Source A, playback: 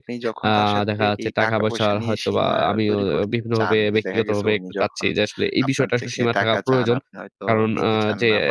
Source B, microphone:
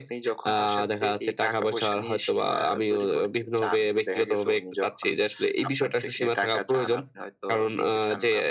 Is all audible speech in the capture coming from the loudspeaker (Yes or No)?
Yes